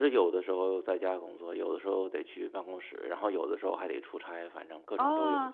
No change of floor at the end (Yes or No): No